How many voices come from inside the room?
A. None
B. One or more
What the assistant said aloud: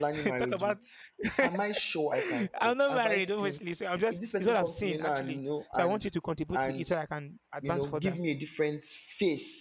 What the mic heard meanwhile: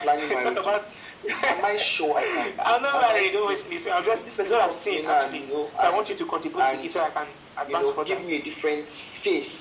A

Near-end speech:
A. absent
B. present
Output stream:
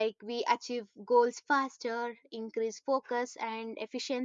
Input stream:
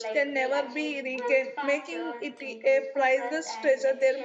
B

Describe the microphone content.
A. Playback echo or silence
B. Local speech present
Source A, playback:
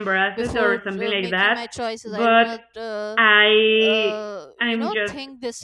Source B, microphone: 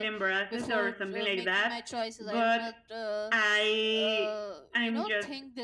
A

